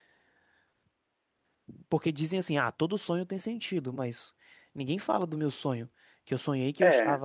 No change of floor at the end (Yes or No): Yes